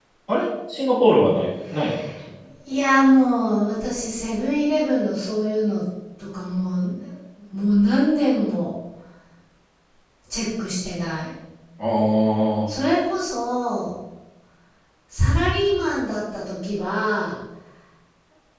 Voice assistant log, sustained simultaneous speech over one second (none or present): none